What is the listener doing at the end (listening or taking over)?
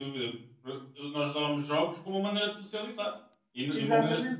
listening